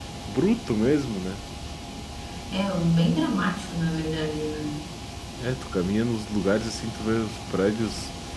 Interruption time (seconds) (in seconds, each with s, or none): none